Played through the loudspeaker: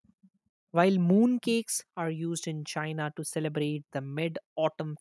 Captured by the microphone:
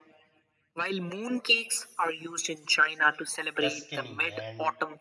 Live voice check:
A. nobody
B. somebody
B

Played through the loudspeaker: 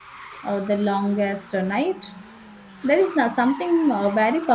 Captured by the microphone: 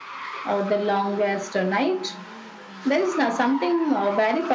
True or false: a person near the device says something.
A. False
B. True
A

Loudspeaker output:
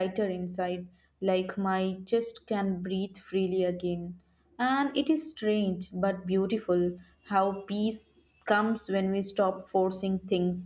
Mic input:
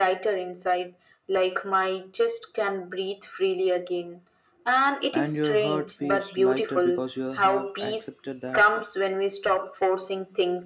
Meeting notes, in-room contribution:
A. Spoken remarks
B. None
A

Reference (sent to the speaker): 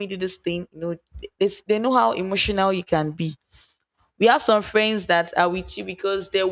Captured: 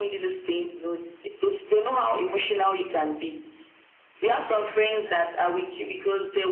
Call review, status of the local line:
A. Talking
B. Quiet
B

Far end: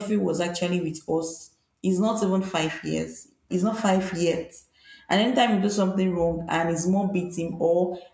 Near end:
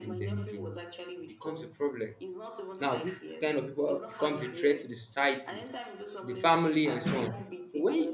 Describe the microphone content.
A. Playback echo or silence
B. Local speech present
B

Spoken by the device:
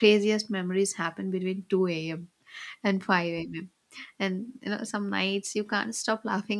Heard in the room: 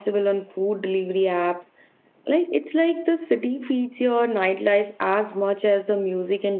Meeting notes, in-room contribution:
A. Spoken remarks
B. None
A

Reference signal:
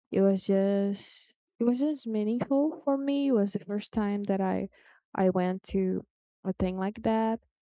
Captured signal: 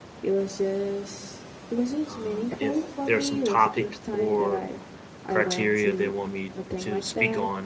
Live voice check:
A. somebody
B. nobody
A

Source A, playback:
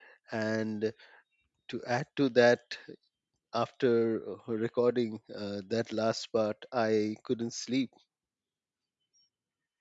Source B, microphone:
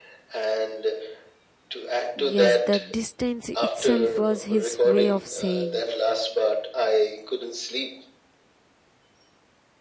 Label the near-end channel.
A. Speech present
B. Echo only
A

